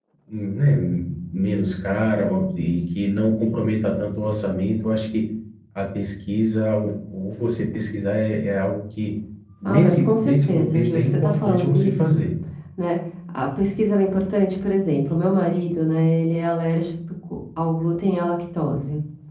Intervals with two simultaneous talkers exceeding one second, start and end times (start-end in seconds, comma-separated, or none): 9.6-12.2